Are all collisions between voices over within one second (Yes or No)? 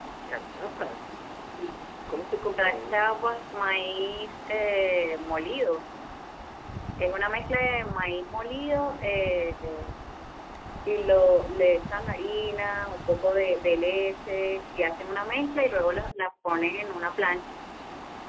Yes